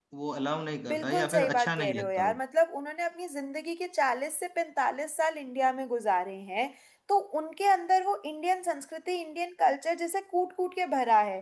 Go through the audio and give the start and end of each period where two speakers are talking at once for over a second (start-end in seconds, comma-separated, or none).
0.9-2.4